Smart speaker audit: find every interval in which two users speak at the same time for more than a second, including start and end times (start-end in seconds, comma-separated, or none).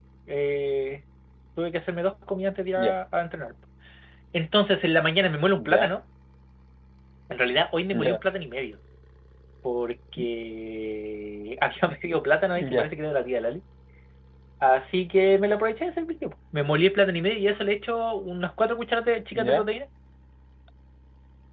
none